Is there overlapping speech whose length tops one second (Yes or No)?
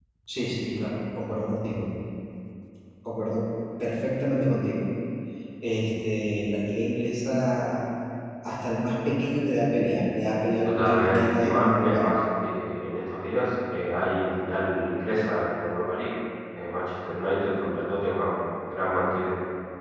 Yes